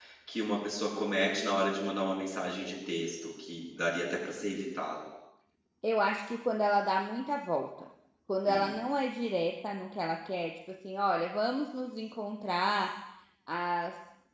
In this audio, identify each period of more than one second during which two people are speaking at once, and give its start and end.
none

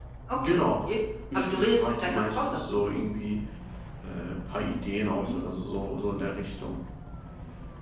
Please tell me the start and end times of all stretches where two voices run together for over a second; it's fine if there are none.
1.3-2.7

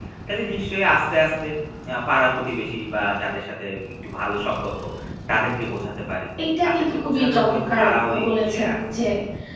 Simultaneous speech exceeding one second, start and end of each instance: 6.7-8.8

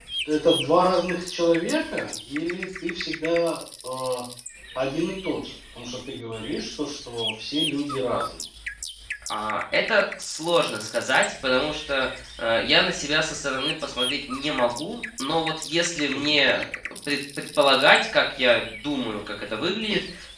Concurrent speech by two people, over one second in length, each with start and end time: none

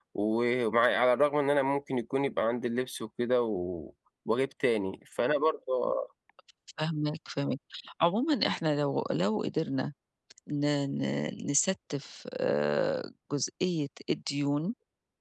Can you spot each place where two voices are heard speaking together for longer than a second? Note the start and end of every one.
none

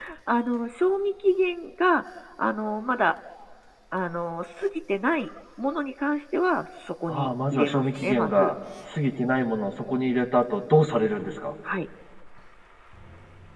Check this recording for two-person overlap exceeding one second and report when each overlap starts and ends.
7.1-8.5

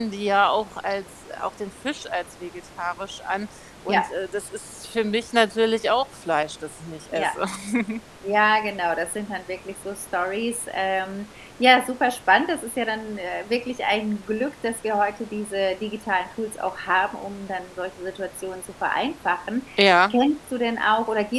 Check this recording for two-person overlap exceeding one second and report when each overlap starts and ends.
none

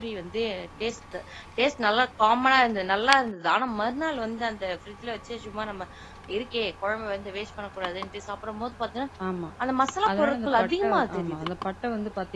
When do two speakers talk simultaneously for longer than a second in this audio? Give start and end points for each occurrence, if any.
10.1-11.5

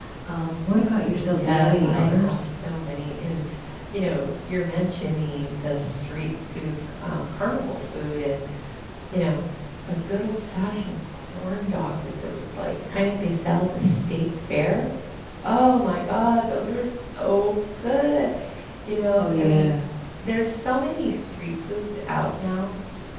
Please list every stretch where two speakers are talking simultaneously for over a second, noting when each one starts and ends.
1.3-2.5

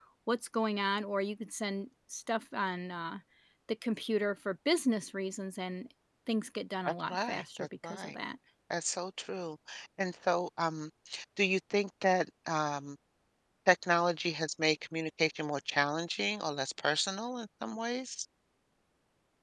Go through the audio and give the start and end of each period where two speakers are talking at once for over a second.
6.9-8.1

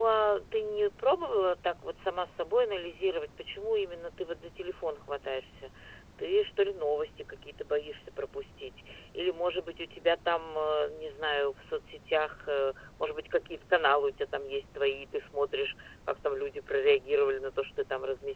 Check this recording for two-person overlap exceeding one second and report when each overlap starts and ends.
none

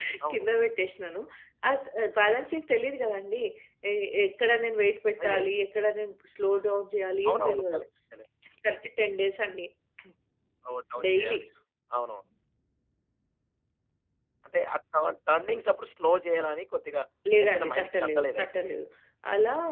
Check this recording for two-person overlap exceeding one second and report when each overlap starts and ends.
17.4-18.7

